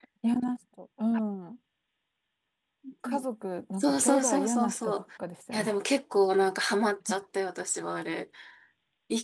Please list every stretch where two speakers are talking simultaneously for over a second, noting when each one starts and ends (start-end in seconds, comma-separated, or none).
3.8-5.0